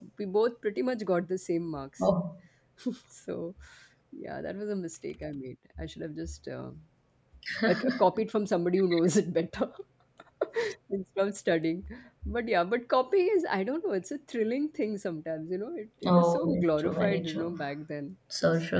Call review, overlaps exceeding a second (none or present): present